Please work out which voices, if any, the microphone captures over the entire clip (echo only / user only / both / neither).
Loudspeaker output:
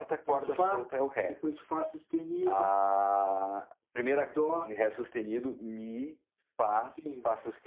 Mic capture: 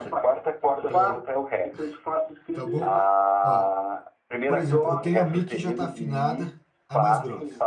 both